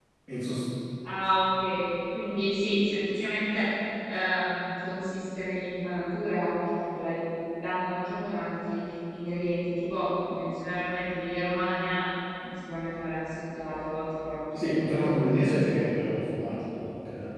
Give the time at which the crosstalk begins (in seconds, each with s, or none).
14.6 s